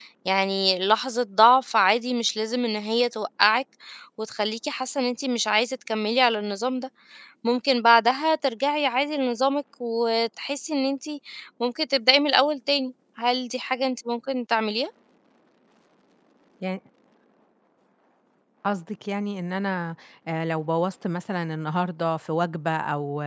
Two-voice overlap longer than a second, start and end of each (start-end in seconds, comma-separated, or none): none